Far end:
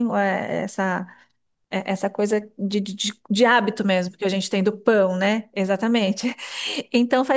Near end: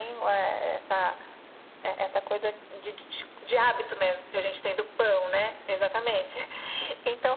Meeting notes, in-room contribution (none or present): none